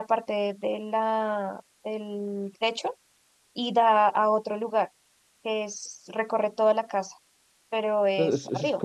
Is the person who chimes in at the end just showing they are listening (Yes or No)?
No